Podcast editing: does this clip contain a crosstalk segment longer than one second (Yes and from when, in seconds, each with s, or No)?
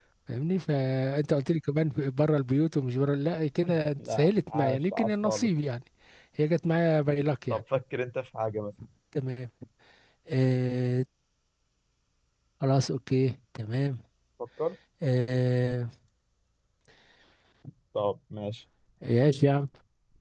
Yes, from 4.0 s